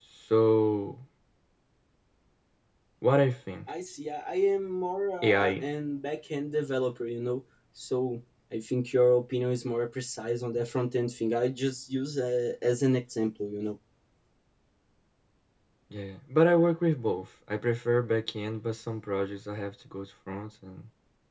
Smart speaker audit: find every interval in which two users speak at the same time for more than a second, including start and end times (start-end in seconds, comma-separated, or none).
none